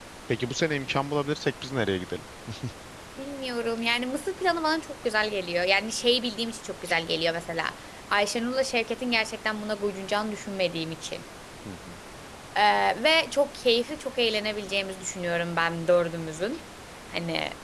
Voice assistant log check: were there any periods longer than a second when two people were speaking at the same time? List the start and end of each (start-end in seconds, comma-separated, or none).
none